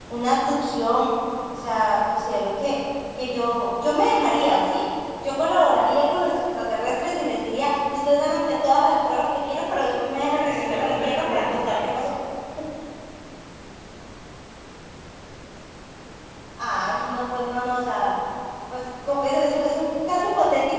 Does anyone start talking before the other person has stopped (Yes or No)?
Yes